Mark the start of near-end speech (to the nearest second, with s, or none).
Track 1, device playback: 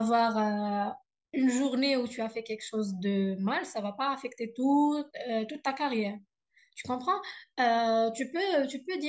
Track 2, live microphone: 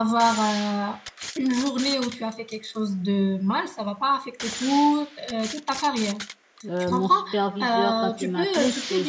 7 s